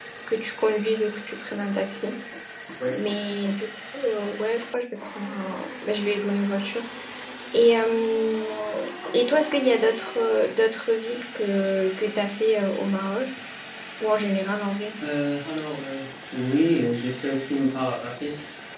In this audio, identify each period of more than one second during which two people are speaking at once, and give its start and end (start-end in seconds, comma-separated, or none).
none